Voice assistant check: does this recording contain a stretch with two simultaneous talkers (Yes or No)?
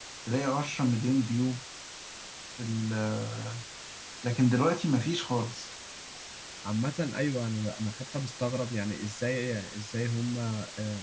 No